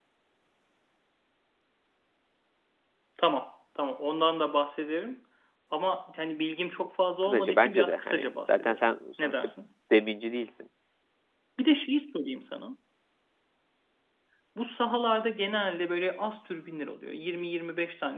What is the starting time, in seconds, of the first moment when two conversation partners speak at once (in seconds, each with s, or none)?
7.2 s